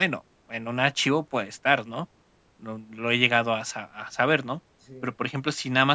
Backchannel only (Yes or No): Yes